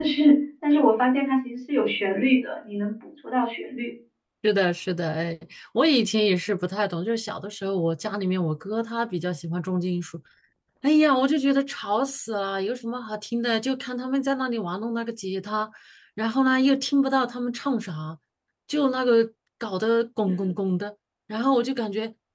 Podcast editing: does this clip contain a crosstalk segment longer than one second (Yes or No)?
No